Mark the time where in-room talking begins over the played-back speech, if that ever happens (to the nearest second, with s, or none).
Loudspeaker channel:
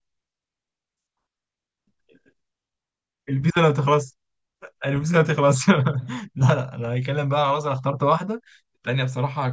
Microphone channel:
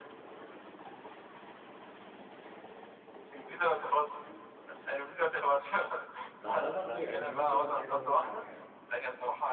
6 s